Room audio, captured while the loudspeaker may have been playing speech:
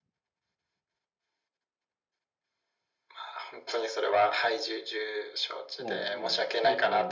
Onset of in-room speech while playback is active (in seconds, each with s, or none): 5.8 s